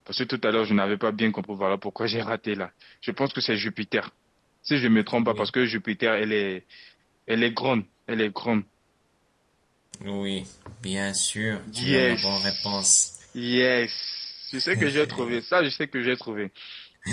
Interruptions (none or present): present